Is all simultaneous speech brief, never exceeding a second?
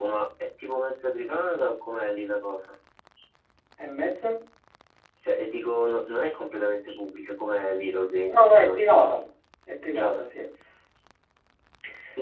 Yes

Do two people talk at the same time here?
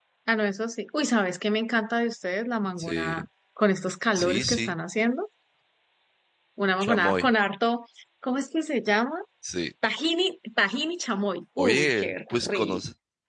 Yes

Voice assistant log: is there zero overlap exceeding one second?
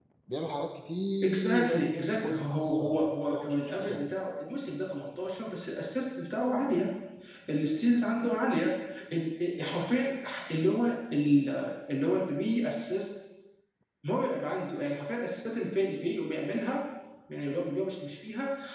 No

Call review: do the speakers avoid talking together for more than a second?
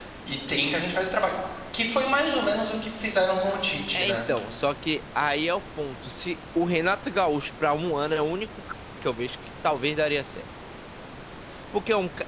Yes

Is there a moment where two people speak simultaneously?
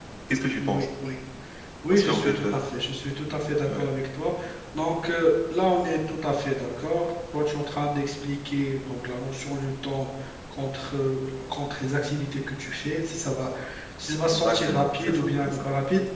Yes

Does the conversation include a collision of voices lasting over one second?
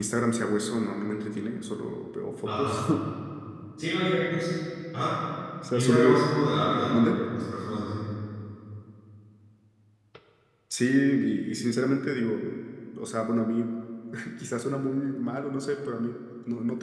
No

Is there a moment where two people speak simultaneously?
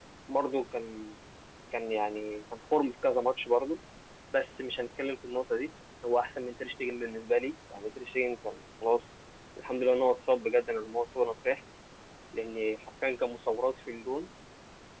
No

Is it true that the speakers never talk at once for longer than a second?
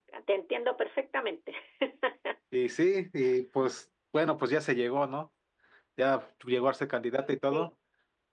Yes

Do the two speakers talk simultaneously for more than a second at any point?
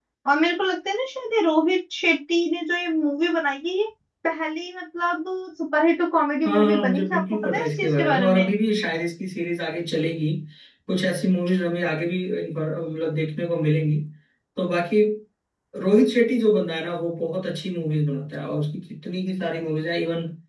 Yes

